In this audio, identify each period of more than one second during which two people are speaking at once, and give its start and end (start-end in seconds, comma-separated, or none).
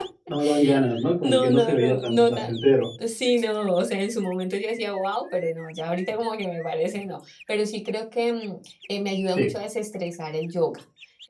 1.2-2.5